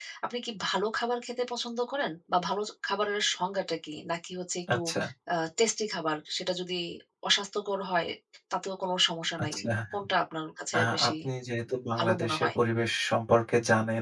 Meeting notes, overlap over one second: none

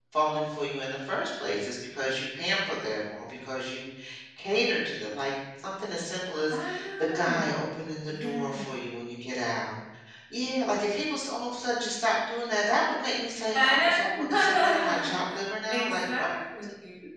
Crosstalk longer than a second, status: present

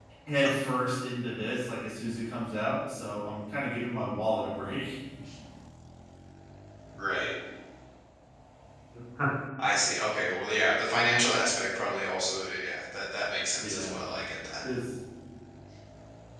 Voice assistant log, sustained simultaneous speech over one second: none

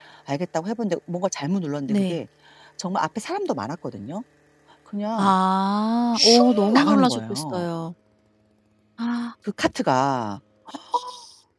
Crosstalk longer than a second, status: present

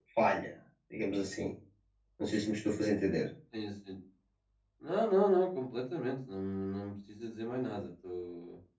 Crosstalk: none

